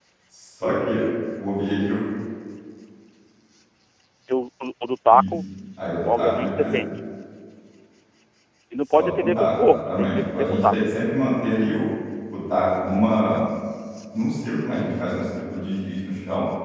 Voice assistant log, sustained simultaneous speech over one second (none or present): present